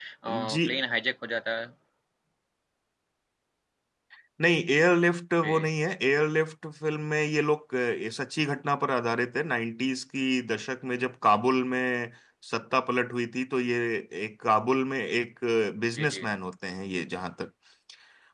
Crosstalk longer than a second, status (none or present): none